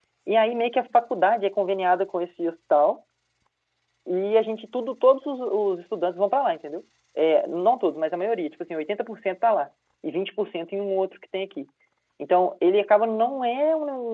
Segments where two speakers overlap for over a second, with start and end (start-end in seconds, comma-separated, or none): none